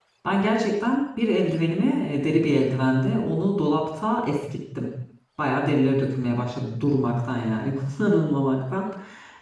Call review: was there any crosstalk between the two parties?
No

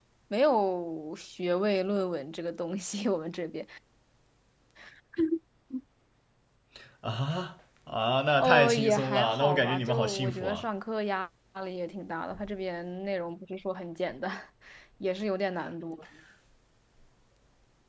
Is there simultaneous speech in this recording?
Yes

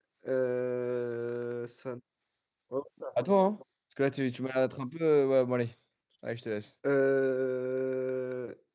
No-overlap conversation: Yes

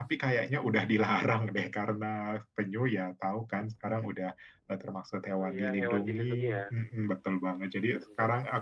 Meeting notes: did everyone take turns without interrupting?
No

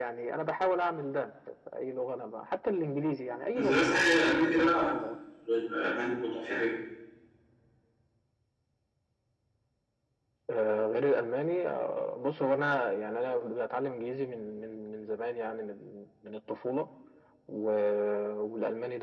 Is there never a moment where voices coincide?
No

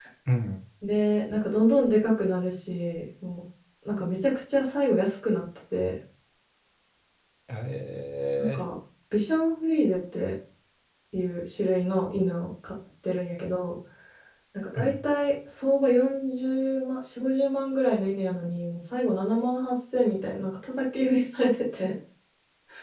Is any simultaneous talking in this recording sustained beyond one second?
No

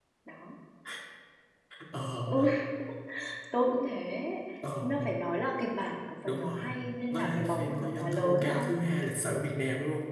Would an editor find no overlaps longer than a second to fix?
No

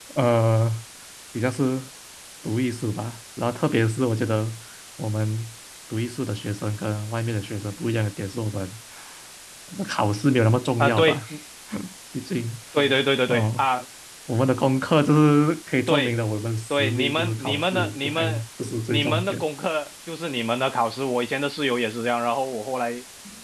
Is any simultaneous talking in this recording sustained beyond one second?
Yes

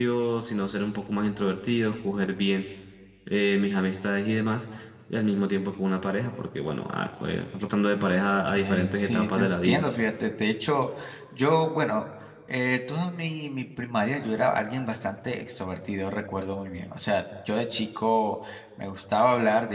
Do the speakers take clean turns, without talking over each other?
No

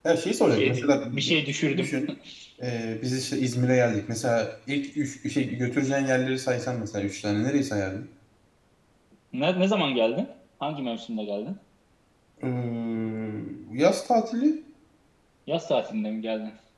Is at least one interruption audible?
Yes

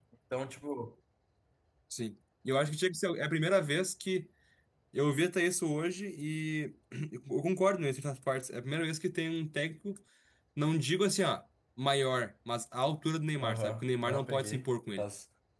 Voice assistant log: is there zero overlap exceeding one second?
No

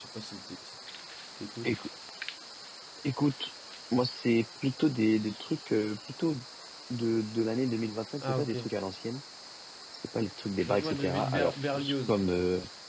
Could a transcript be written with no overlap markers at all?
No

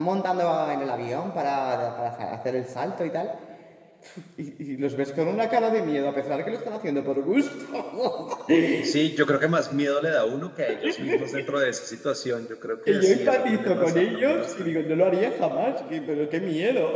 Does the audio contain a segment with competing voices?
Yes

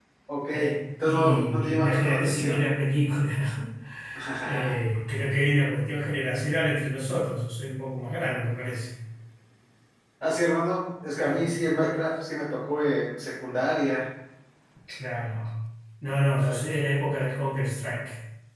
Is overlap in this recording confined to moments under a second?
No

